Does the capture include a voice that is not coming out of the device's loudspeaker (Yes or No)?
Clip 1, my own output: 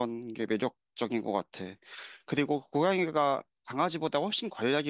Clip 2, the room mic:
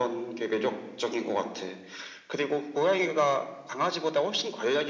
No